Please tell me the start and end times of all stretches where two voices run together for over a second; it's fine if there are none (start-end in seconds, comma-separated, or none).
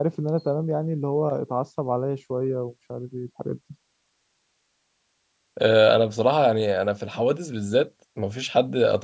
none